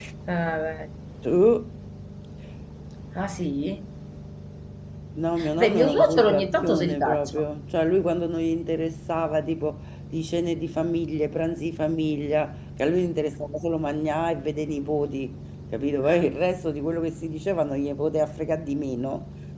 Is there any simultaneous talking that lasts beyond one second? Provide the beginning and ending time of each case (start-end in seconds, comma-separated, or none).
5.6-7.3